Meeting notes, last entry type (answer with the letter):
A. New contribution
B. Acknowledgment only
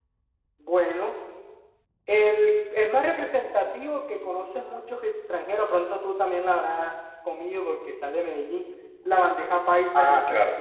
A